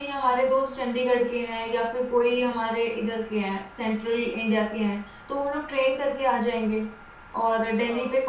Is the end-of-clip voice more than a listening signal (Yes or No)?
No